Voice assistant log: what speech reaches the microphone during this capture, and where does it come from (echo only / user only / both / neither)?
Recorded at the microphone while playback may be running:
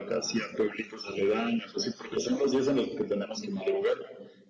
echo only